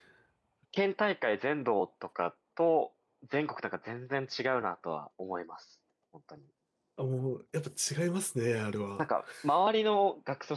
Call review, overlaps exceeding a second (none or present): none